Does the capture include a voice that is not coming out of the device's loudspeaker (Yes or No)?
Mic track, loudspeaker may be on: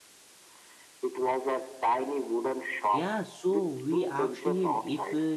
Yes